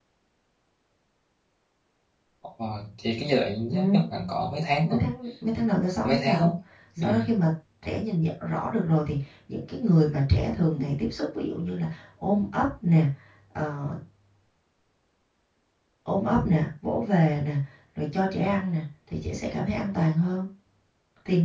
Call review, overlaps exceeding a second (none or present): none